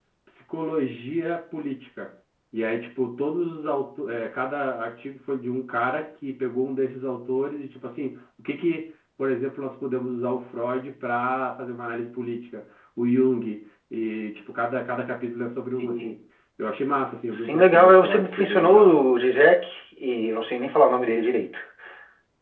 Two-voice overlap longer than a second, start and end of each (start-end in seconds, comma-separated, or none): 17.3-18.9